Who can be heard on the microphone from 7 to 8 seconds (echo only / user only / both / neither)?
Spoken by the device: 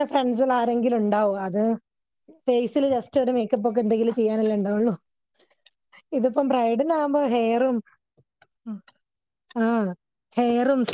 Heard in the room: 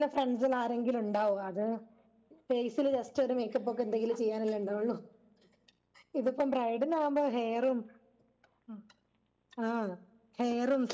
echo only